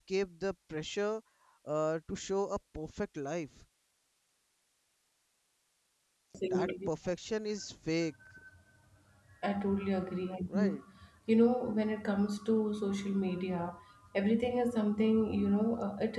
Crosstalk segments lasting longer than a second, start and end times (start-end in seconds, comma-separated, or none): none